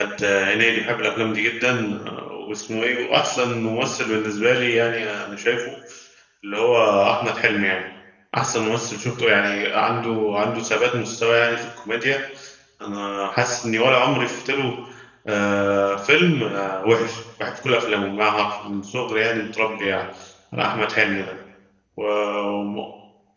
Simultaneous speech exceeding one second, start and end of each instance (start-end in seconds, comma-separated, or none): none